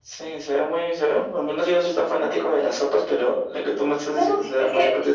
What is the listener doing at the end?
taking over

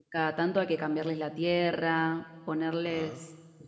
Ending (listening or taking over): listening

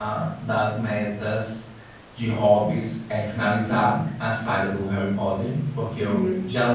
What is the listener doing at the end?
listening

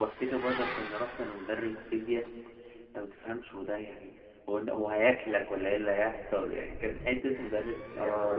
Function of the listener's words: taking over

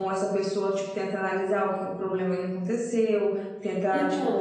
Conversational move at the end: listening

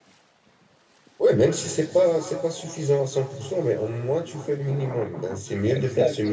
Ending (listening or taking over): listening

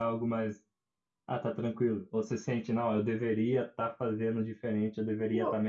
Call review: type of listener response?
listening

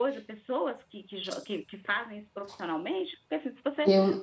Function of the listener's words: taking over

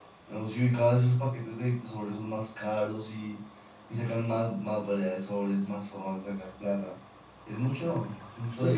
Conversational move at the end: taking over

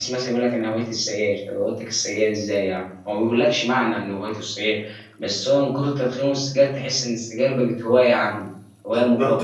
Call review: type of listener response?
taking over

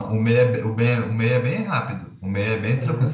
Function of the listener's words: listening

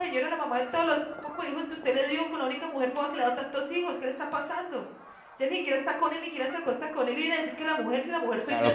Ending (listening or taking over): taking over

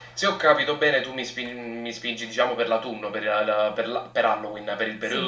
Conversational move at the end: taking over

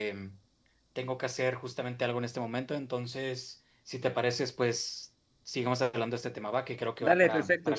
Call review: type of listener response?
taking over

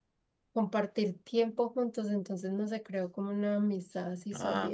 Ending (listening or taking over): taking over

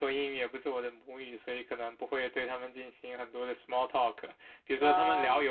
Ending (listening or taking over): listening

